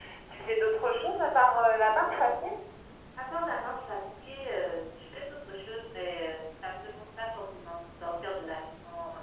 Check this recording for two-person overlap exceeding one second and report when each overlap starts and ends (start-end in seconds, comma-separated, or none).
none